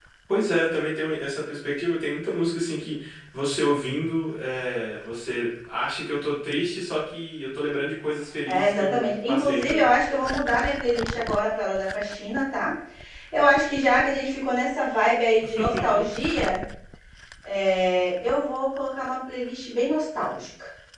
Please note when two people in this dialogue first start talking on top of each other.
8 s

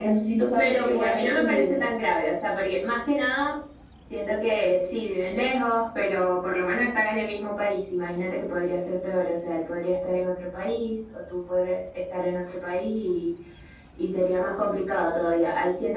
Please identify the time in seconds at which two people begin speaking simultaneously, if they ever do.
1 s

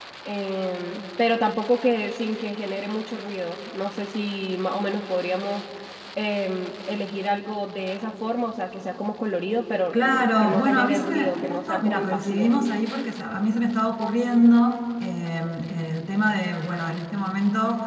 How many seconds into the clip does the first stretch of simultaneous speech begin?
10 s

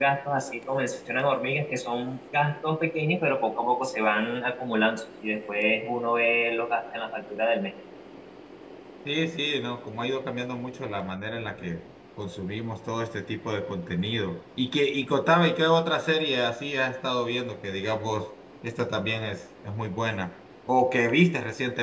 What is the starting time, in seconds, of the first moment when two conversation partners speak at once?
none

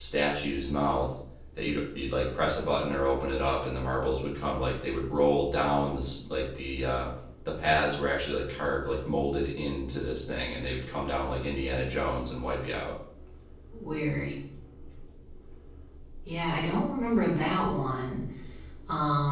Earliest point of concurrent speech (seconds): none

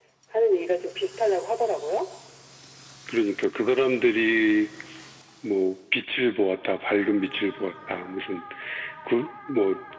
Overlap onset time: none

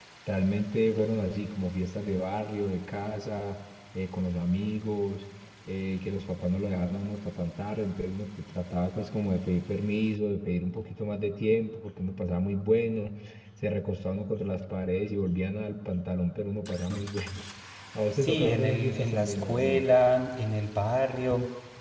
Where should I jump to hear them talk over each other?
18 s

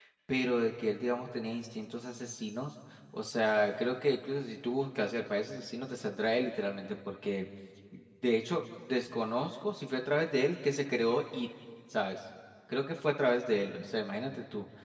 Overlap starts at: none

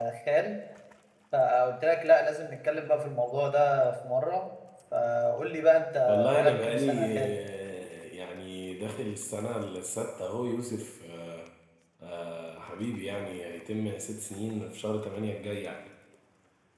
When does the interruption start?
6 s

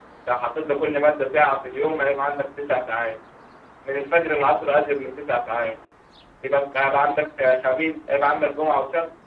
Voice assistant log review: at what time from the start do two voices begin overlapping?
none

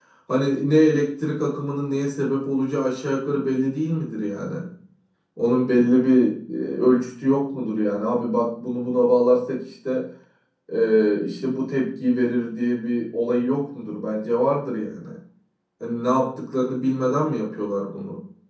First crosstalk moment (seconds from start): none

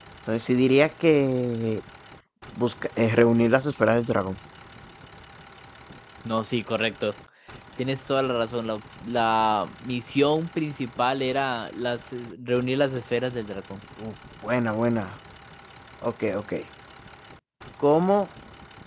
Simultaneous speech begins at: none

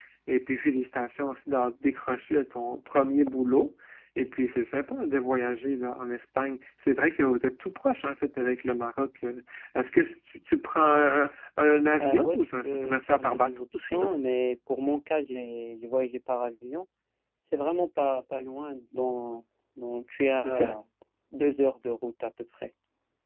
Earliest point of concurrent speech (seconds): 12 s

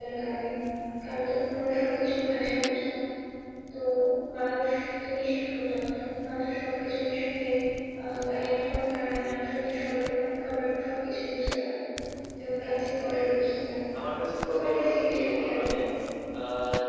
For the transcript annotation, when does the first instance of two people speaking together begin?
14 s

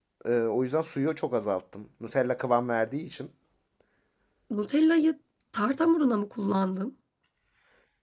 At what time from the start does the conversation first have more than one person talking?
none

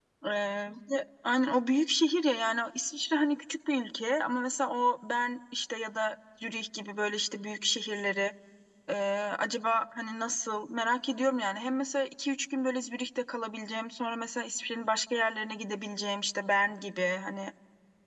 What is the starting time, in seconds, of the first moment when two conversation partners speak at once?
none

